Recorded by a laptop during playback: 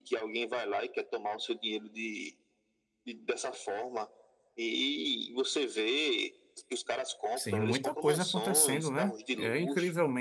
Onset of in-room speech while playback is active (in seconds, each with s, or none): 7.3 s